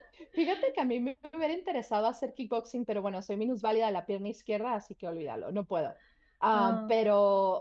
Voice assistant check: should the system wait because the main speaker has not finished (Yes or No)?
Yes